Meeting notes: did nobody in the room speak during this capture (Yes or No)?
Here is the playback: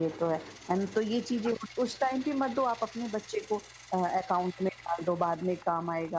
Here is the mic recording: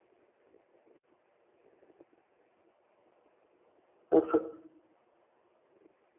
No